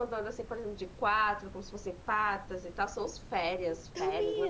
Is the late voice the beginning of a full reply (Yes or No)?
Yes